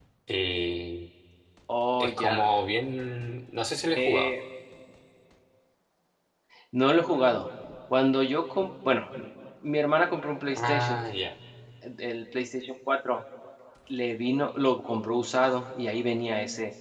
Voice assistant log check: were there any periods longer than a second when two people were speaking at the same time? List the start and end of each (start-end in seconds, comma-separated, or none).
none